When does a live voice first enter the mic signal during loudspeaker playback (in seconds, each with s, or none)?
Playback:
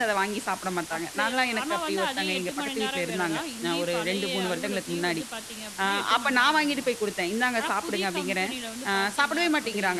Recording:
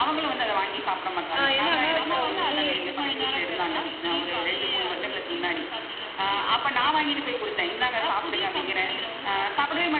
1.4 s